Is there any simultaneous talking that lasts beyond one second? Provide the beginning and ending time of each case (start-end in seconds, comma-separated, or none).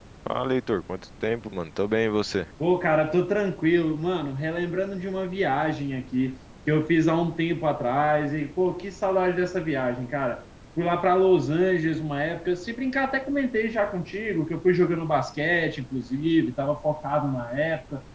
none